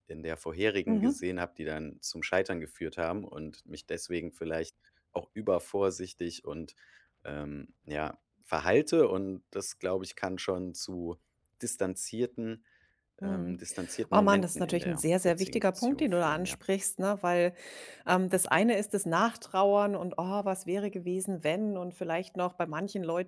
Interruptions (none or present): present